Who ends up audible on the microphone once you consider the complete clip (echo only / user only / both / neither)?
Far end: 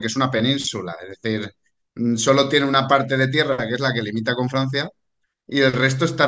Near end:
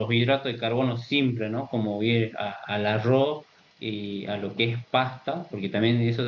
user only